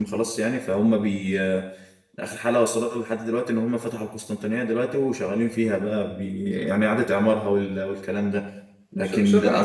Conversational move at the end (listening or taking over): taking over